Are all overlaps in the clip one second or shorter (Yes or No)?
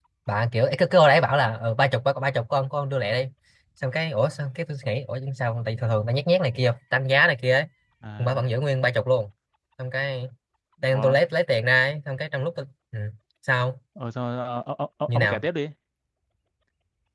Yes